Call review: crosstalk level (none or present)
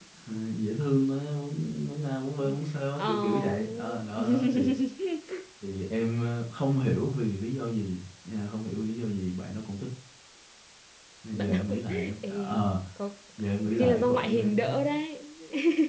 present